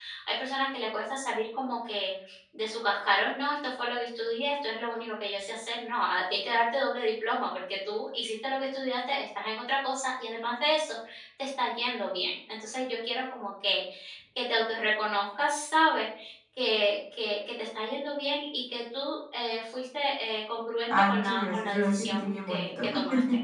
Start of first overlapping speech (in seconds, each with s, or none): 20.9 s